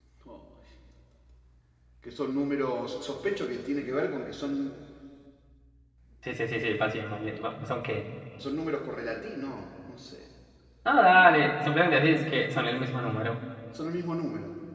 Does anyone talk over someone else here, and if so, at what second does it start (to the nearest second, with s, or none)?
none